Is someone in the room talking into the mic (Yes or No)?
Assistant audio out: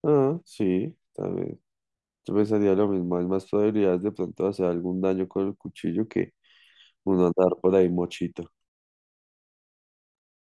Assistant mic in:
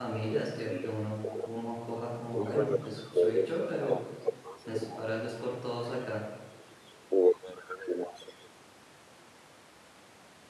Yes